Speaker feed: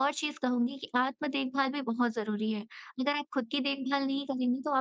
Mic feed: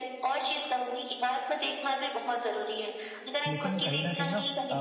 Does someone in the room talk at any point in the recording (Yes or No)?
Yes